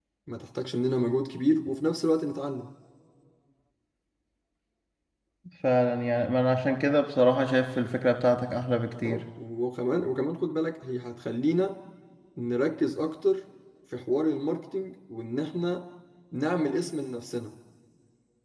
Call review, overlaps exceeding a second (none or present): none